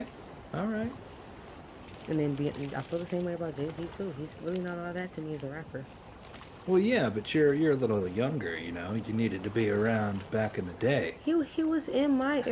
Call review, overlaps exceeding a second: none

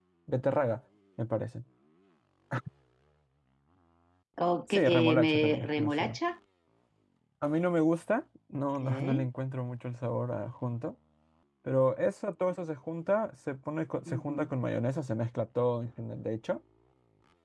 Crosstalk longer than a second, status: present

